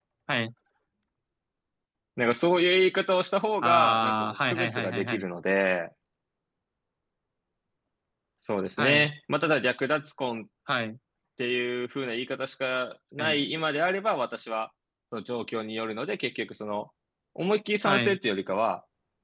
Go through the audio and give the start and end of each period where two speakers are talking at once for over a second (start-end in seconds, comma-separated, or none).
3.6-5.2